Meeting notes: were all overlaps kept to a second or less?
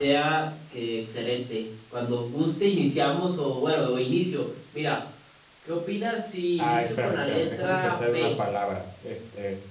No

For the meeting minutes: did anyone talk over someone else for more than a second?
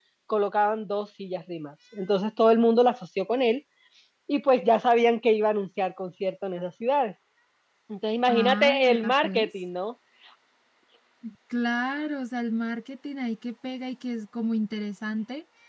Yes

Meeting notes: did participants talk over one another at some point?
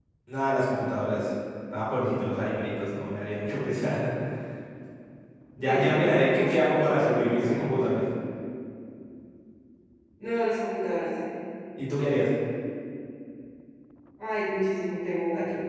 Yes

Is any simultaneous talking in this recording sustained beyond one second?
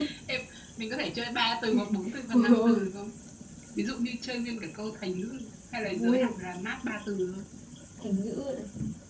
No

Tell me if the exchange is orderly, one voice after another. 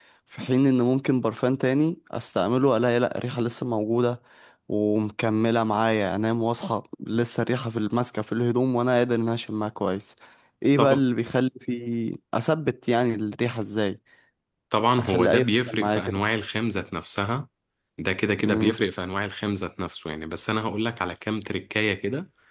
No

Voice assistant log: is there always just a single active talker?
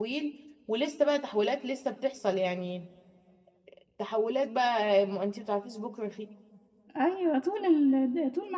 Yes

